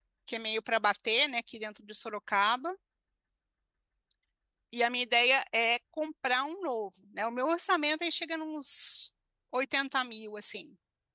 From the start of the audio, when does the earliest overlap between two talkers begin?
none

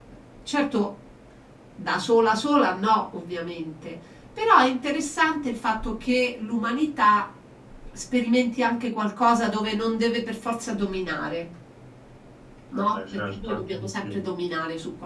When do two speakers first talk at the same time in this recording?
12.7 s

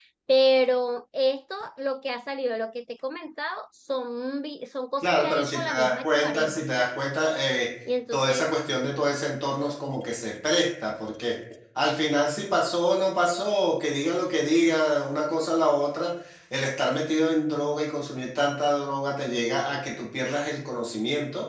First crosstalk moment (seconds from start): 5.0 s

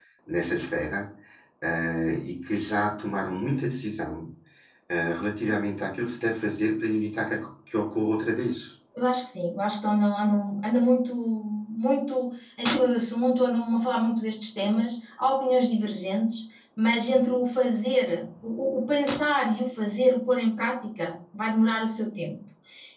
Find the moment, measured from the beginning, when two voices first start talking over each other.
none

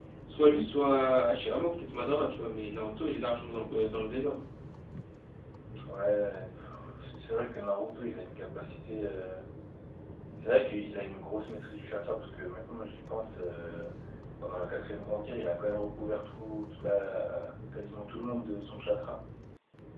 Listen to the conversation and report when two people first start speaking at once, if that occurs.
none

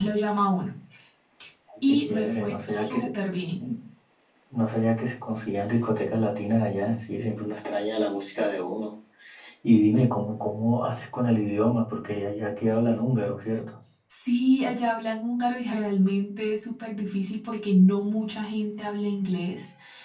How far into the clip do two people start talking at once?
1.9 s

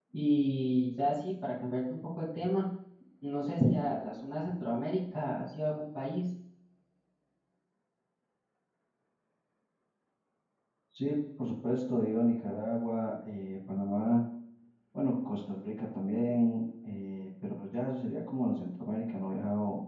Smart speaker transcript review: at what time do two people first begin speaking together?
none

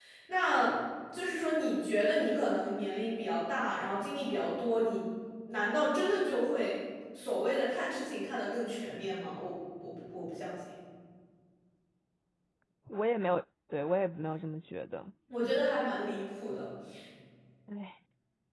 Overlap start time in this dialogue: none

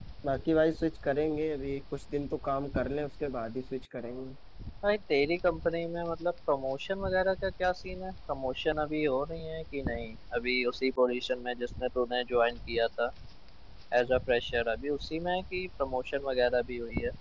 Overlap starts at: none

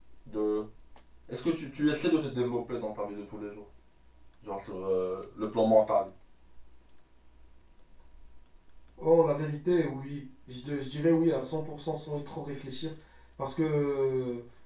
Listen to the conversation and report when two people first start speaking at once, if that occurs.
none

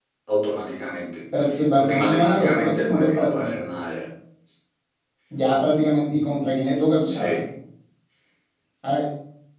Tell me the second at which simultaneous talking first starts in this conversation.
1.8 s

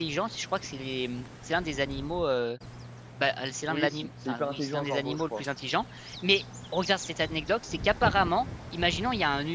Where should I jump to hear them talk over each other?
3.7 s

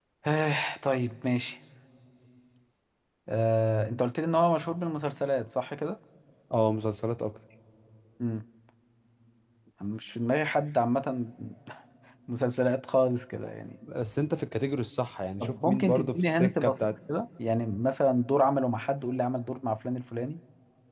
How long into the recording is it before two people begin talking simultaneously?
15.4 s

